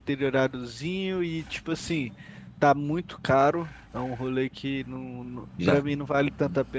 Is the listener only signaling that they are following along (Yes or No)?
Yes